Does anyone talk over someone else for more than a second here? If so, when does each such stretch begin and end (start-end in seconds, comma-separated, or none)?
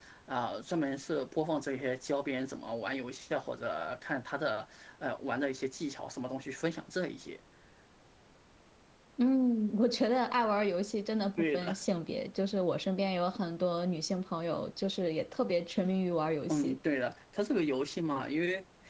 none